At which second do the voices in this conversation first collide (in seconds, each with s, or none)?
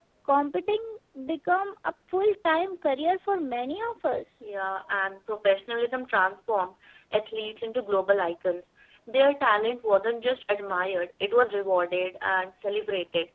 none